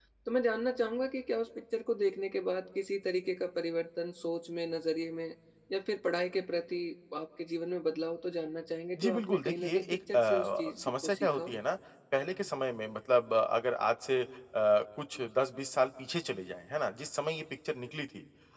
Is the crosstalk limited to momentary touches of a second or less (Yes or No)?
No